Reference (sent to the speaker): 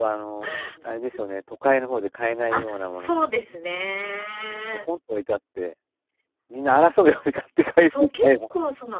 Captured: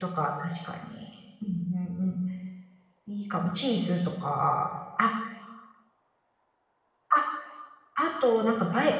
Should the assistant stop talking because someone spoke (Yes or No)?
Yes